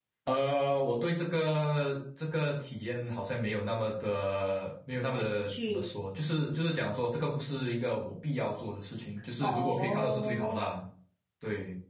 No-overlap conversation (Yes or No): No